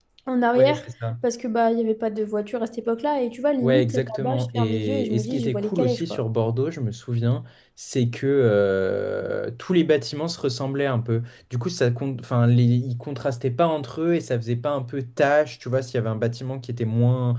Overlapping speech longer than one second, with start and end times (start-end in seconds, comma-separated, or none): 3.6-6.2